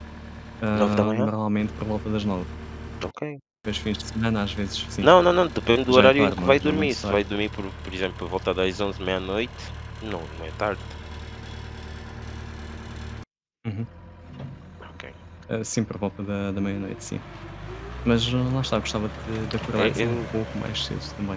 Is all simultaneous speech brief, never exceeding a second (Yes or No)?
No